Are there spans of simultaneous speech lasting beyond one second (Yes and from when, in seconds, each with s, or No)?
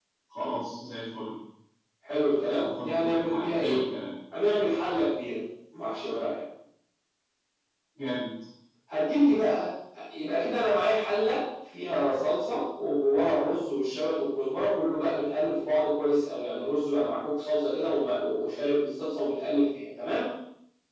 Yes, from 2.5 s